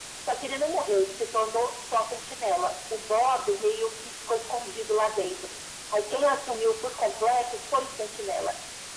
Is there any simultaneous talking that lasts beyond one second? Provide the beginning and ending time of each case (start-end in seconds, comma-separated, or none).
none